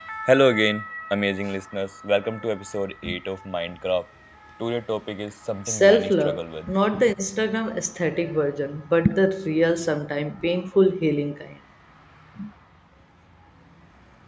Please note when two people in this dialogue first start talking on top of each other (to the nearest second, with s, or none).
6 s